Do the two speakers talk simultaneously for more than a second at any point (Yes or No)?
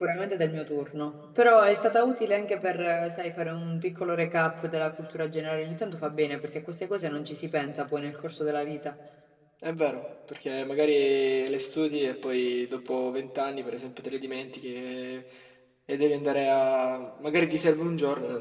No